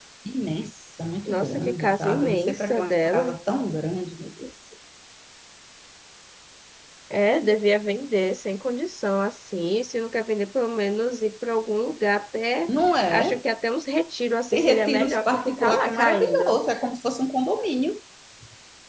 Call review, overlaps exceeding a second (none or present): present